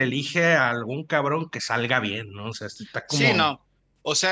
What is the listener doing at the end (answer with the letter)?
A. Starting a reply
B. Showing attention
A